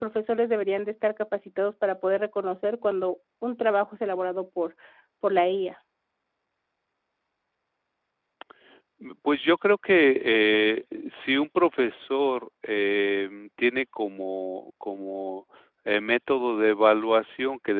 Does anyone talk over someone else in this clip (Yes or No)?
No